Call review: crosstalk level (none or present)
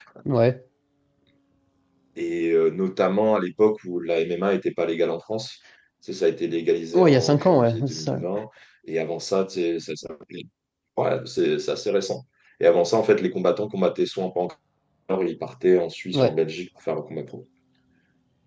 present